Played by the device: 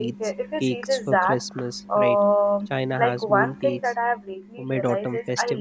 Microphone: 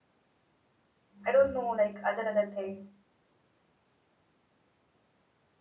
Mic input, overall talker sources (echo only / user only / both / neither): user only